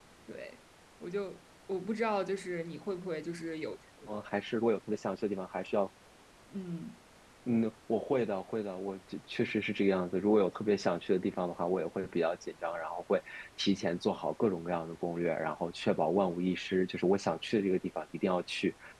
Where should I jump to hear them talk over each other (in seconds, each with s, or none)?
none